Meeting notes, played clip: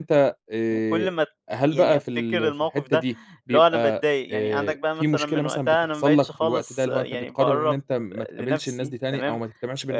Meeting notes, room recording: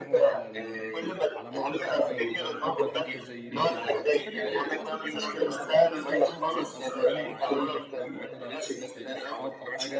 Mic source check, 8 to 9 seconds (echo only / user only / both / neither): both